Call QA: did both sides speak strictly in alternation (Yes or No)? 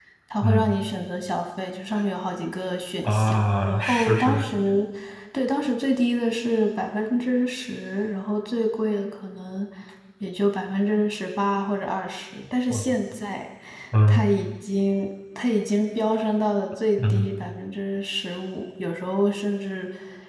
No